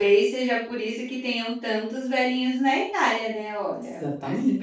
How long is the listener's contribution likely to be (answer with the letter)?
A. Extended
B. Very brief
A